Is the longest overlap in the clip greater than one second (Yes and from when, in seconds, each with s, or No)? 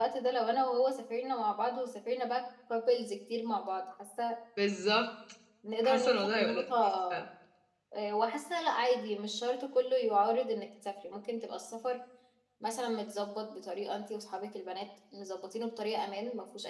Yes, from 5.8 s